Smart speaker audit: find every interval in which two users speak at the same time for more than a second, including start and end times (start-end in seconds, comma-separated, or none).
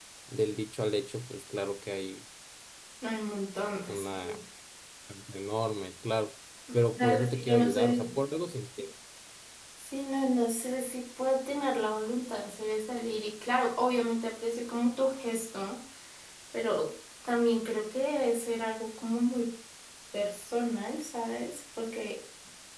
7.0-8.2